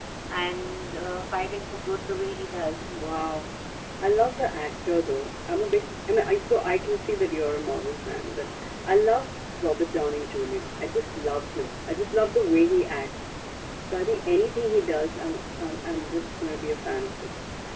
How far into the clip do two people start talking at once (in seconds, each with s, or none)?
none